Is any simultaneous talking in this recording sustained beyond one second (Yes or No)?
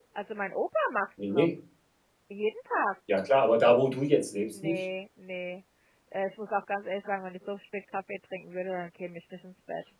No